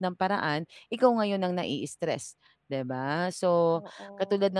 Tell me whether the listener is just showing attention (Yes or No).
Yes